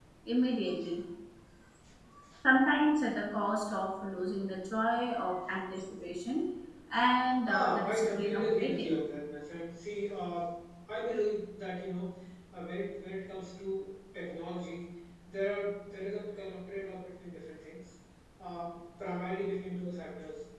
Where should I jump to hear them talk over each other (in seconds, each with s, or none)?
7.5 s